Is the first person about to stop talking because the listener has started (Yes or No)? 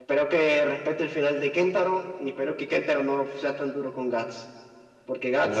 Yes